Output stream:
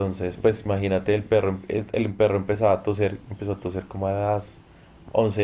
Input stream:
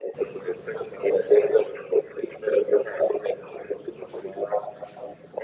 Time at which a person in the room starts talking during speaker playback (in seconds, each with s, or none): none